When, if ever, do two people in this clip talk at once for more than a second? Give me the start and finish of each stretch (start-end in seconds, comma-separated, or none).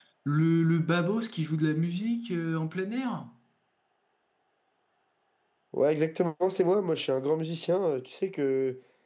none